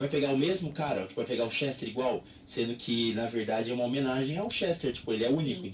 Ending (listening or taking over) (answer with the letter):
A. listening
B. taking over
A